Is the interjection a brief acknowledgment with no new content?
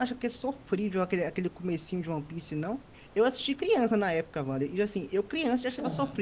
Yes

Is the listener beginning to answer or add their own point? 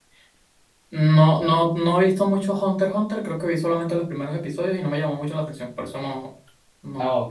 Yes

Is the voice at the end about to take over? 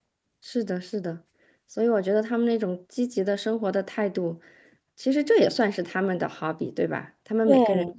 No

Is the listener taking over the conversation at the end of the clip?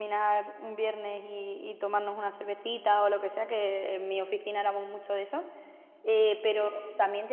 No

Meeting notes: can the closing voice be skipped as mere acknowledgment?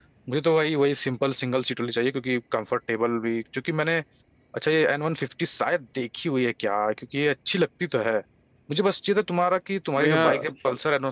Yes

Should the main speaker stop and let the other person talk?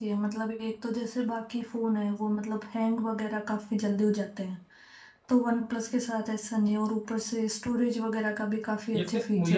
Yes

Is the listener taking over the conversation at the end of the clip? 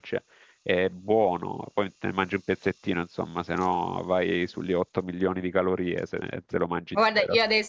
Yes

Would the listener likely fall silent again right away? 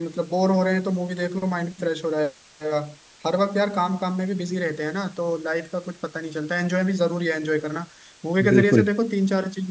Yes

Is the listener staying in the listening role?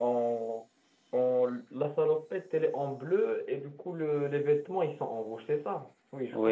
No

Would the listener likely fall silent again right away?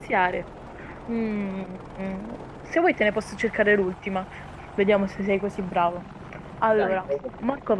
Yes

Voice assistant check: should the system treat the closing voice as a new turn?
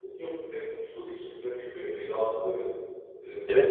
Yes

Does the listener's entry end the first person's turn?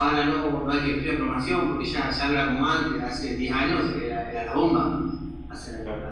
Yes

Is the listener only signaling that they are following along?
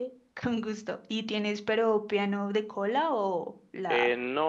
No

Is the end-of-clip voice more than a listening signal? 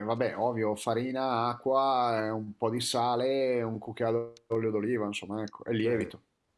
Yes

